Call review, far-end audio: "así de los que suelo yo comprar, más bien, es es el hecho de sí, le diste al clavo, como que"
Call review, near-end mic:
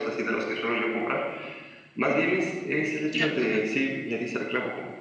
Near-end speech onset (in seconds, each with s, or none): 3.1 s